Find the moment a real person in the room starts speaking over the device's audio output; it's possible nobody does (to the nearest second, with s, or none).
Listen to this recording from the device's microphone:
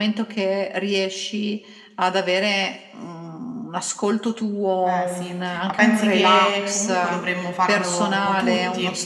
5 s